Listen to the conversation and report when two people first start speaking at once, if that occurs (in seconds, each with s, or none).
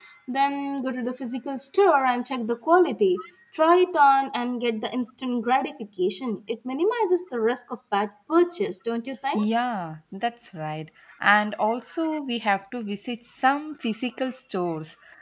none